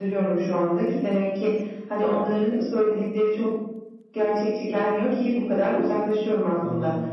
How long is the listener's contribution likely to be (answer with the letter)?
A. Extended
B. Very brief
B